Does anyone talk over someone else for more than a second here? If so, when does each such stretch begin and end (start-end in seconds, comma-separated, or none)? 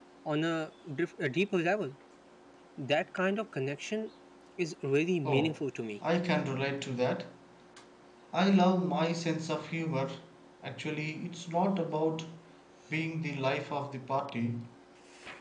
none